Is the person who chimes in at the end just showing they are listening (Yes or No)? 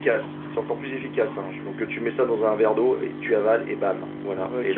No